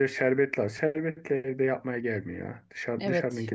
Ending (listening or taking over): taking over